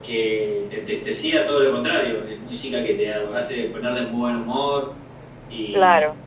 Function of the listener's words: taking over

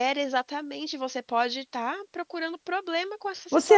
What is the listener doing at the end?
taking over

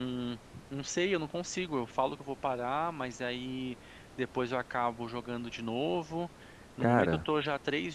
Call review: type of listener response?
listening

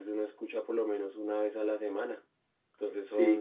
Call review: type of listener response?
taking over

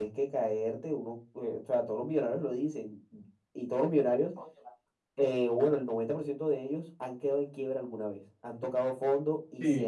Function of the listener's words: taking over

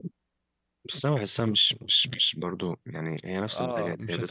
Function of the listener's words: taking over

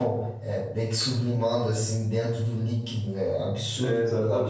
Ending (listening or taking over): taking over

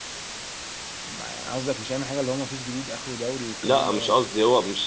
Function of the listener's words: taking over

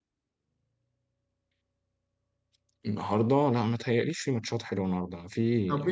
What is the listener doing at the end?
taking over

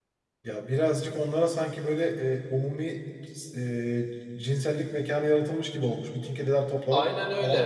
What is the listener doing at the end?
taking over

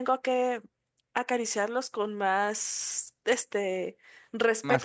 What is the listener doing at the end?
listening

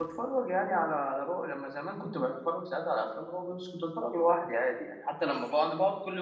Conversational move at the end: listening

